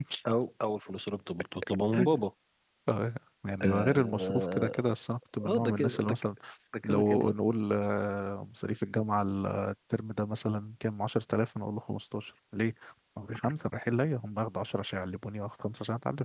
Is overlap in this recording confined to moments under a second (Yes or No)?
No